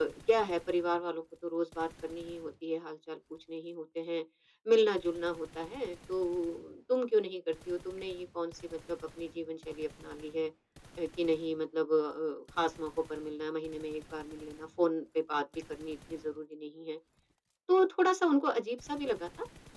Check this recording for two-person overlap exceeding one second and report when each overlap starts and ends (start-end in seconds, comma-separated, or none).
none